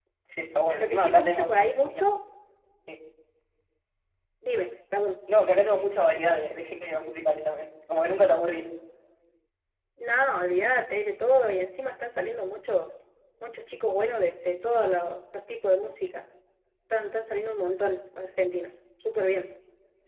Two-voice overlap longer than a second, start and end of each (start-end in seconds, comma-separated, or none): 0.8-2.0